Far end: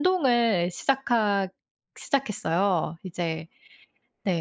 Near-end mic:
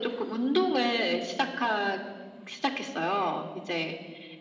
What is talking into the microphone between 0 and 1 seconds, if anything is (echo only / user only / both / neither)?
echo only